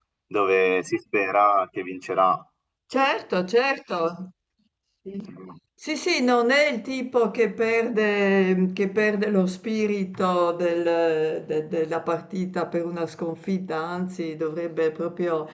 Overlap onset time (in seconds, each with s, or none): none